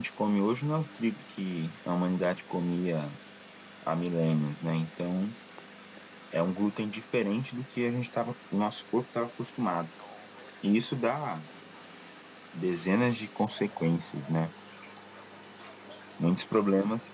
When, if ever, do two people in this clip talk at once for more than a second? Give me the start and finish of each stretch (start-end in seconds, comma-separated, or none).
none